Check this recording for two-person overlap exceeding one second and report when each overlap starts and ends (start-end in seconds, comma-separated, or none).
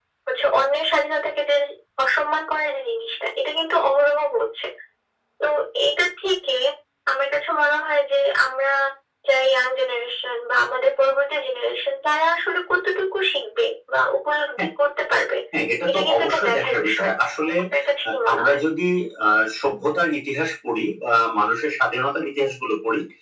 15.9-17.1